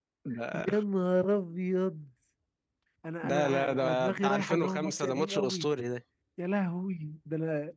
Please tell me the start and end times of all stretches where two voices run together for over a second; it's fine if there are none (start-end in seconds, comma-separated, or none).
3.2-5.7